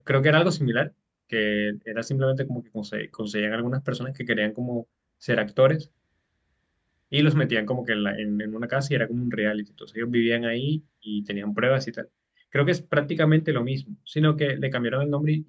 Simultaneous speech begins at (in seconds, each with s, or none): none